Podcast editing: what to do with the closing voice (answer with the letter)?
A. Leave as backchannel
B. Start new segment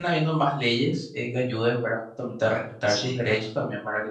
A